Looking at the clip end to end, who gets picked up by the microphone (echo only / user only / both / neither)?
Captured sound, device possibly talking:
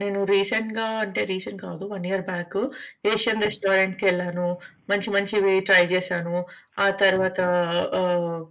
echo only